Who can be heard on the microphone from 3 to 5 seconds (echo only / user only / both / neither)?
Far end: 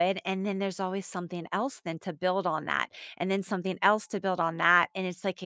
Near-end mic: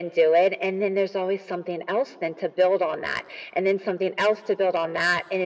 echo only